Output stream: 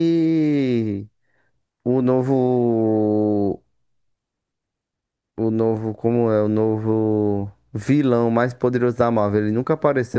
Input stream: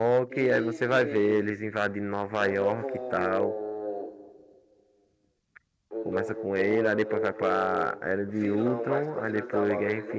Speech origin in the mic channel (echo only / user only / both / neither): both